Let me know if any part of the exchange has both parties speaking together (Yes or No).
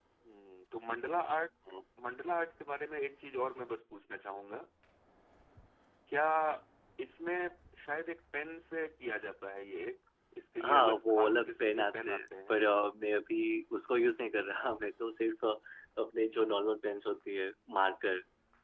Yes